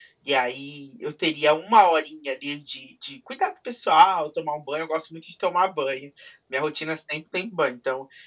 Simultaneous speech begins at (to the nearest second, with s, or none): none